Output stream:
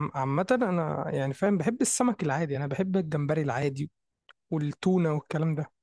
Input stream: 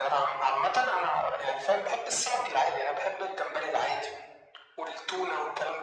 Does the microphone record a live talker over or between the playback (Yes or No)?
No